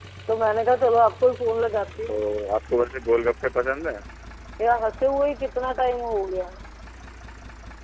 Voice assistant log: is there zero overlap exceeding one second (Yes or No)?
Yes